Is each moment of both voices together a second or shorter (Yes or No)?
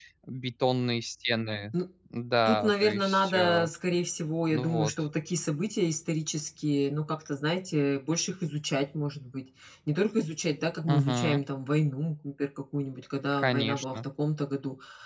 No